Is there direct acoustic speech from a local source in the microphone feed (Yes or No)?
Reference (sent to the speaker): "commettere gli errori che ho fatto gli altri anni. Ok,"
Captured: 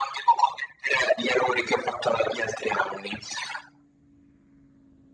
No